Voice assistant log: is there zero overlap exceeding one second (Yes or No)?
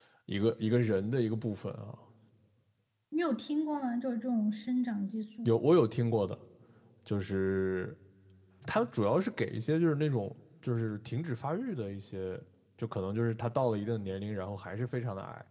Yes